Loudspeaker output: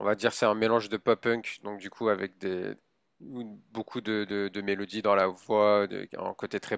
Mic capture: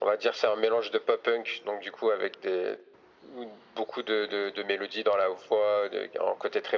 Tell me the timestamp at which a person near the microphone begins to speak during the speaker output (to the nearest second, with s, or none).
none